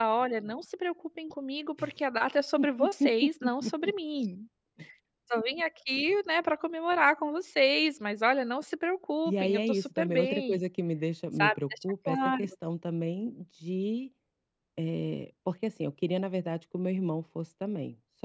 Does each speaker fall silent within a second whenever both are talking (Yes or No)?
No